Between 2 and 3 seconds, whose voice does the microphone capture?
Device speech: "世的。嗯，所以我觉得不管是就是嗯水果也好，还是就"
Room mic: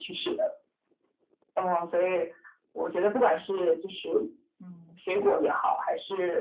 echo only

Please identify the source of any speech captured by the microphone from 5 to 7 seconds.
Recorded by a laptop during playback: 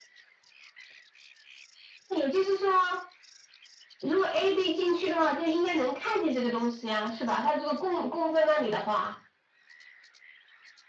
echo only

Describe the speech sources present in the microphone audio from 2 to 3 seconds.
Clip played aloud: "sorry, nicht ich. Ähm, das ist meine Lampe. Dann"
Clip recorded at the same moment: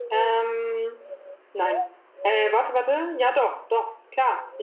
user only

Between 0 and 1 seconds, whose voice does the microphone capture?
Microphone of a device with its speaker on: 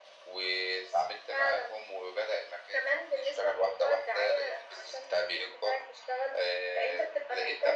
echo only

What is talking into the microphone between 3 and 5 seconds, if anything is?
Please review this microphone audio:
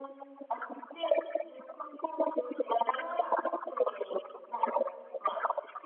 echo only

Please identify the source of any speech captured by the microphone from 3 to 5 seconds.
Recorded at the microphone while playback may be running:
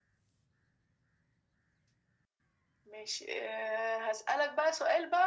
echo only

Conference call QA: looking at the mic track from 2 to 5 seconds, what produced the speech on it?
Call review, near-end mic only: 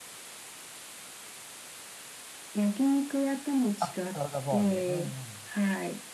both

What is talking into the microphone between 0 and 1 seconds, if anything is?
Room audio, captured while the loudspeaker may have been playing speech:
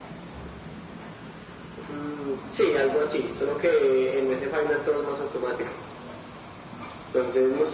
neither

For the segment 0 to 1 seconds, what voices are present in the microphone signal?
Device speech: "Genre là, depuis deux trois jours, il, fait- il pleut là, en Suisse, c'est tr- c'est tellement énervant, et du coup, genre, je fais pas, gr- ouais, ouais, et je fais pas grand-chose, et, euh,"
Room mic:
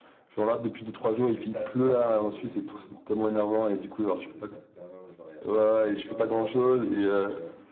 echo only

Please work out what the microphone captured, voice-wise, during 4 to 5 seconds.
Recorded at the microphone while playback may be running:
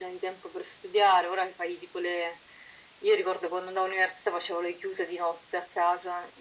echo only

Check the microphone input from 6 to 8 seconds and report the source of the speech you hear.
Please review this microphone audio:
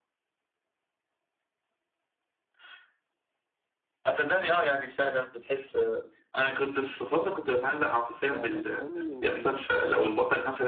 echo only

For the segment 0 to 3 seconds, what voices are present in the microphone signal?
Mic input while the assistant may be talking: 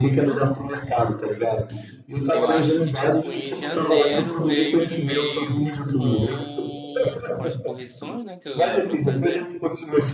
both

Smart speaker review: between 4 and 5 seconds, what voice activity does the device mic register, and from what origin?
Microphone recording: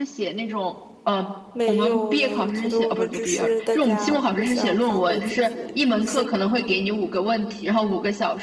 both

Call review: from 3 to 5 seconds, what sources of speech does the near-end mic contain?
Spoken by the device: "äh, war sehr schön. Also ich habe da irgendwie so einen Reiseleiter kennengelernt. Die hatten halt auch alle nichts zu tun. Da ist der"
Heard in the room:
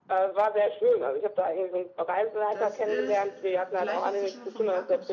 both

